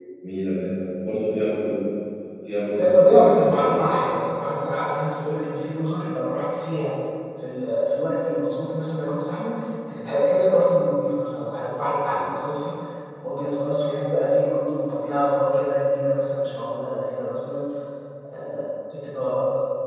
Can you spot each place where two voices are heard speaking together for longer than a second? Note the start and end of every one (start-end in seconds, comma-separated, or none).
2.8-4.2